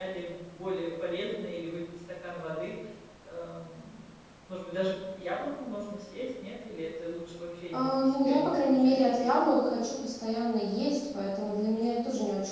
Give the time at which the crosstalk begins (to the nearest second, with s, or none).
8 s